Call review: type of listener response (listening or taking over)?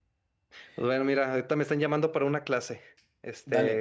listening